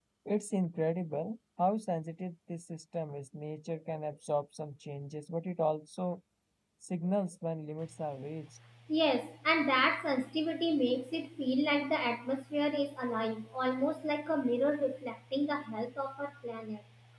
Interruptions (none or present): none